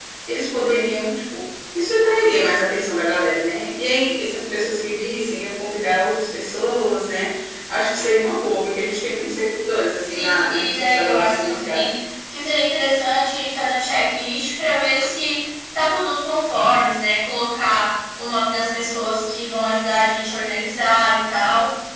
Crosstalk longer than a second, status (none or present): present